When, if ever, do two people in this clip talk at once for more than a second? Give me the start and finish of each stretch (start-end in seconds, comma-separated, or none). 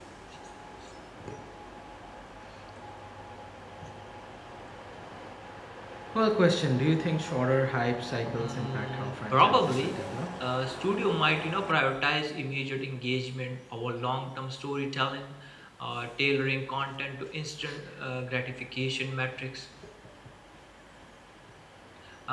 8.3-9.9